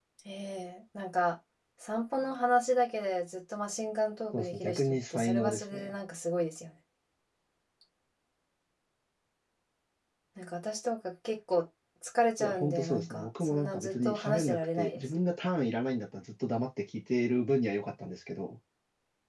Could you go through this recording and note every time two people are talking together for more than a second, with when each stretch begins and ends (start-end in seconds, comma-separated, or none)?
4.3-5.9, 12.4-15.0